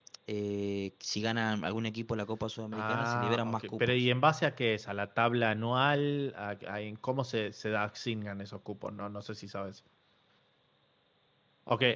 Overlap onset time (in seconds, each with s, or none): 2.7 s